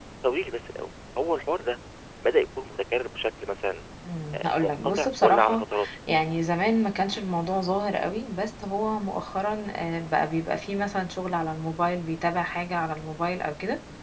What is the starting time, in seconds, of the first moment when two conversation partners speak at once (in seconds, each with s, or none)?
4.4 s